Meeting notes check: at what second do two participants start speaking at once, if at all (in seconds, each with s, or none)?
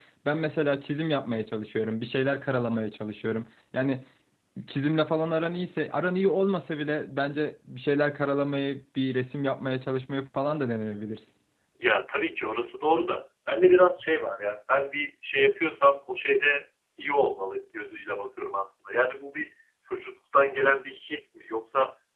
none